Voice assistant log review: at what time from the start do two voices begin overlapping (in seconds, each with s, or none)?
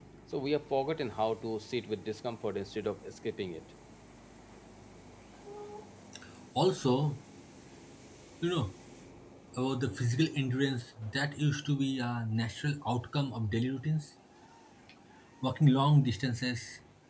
none